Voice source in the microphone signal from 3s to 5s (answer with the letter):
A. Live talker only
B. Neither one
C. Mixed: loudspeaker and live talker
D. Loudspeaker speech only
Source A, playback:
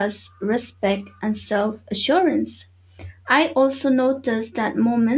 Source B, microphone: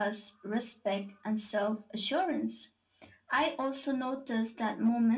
D